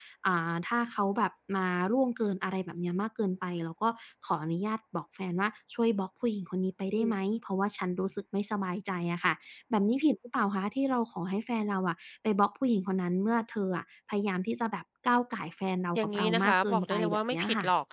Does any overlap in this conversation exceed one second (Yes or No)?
Yes